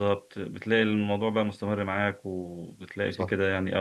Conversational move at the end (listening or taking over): listening